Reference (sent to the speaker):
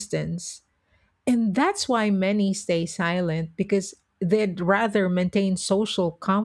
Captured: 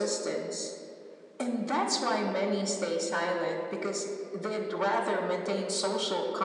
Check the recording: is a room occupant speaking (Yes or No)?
No